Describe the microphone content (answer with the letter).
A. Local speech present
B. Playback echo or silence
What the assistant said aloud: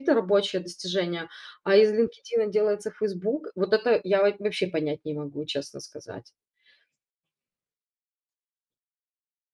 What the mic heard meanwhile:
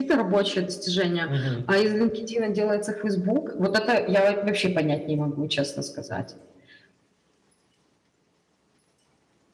A